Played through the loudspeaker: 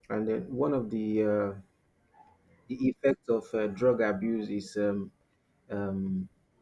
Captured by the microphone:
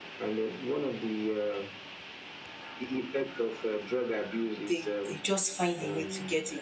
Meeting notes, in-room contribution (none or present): present